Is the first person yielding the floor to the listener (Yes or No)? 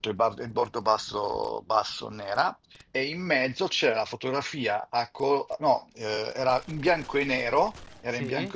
No